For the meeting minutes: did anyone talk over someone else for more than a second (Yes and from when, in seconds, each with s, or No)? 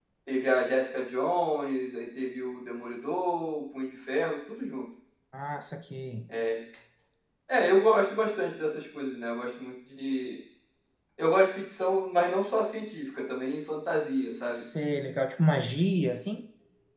No